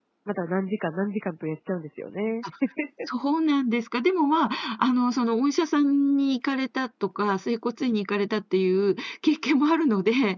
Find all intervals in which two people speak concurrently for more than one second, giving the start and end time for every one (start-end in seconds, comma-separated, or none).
none